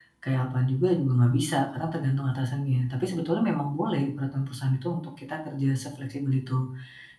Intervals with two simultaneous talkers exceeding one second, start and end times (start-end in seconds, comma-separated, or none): none